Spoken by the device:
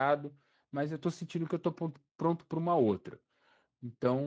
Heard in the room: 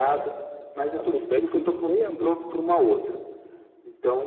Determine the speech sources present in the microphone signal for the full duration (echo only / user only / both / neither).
both